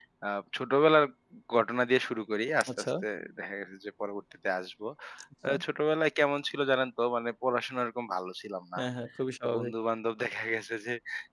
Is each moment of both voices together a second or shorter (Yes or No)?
Yes